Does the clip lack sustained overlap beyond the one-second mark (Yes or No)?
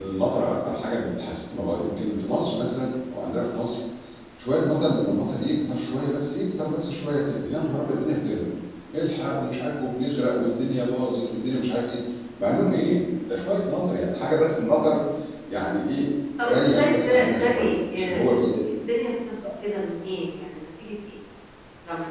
No